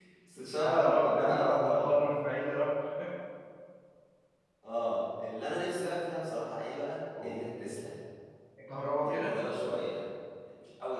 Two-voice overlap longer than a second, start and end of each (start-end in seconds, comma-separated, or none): 0.6-2.0